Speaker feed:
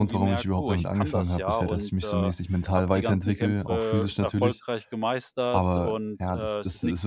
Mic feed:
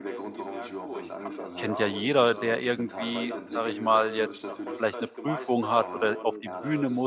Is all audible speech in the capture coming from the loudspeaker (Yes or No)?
No